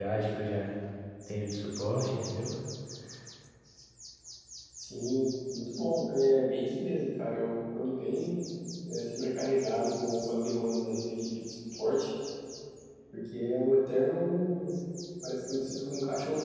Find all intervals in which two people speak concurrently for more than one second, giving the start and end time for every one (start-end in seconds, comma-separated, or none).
none